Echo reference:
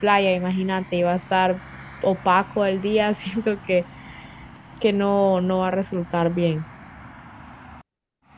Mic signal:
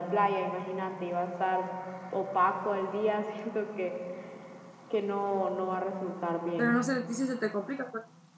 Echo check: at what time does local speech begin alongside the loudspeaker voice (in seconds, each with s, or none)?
6.5 s